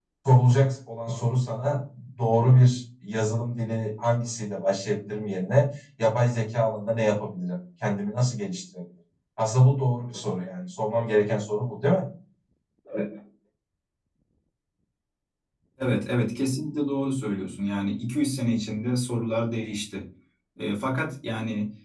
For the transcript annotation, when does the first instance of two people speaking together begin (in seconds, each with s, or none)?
none